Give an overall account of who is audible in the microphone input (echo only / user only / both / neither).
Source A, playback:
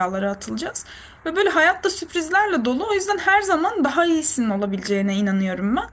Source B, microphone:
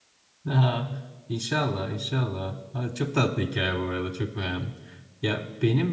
user only